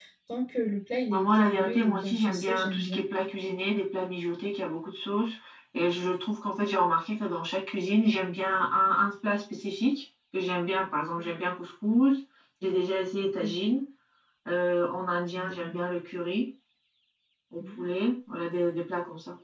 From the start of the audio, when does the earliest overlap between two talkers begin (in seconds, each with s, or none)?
1.1 s